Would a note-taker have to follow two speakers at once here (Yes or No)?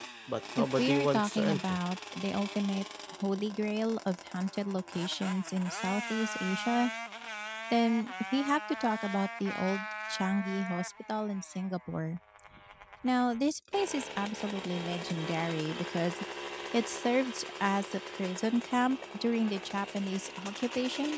Yes